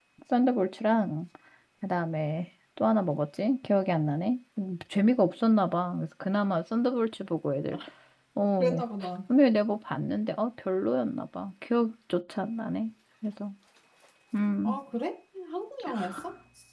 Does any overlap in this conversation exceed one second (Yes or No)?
No